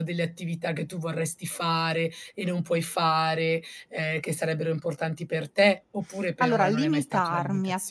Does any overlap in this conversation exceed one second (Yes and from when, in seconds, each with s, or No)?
Yes, from 6.4 s